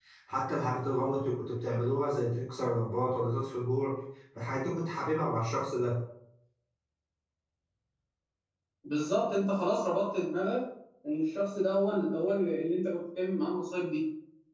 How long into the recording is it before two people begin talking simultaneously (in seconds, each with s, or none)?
none